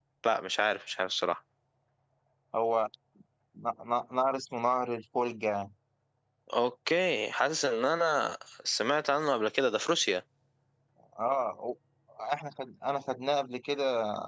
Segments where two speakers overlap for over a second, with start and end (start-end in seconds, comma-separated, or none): none